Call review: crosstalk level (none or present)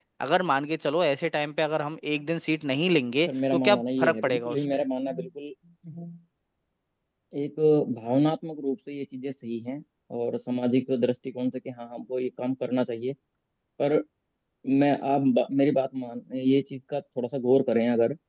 present